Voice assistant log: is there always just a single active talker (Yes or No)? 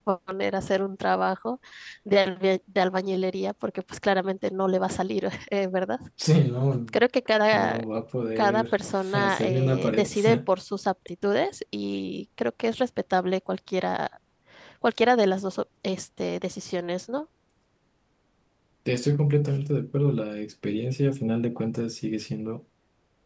No